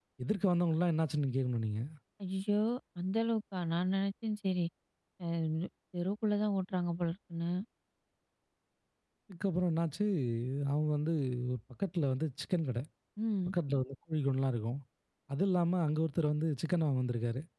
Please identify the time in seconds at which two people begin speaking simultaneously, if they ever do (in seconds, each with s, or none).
none